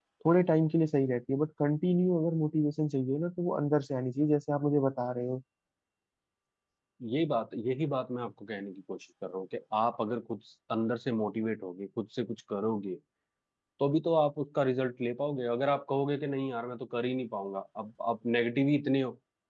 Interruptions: none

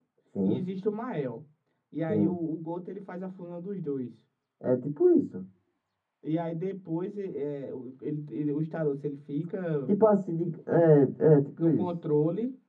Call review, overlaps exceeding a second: none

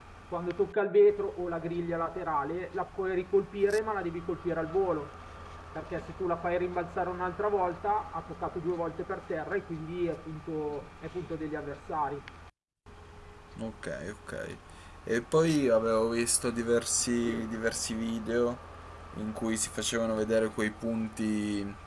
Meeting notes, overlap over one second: none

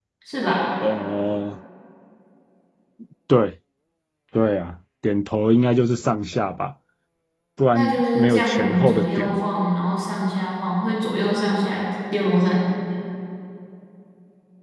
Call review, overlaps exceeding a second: present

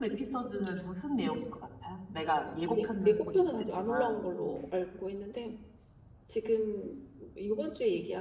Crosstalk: present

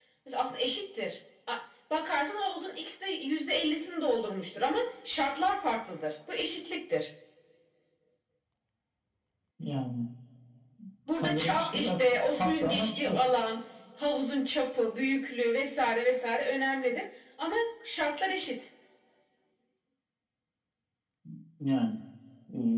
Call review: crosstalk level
present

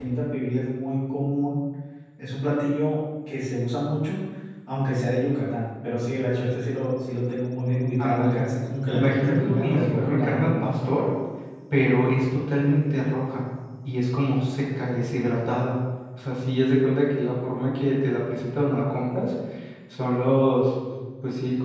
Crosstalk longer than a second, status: present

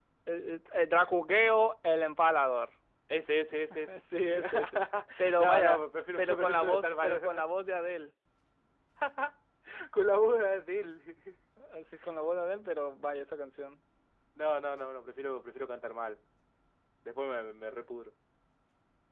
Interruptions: present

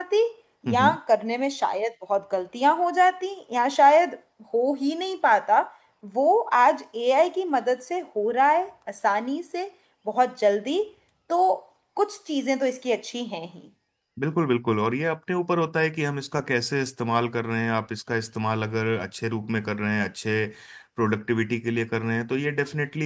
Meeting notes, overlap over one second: none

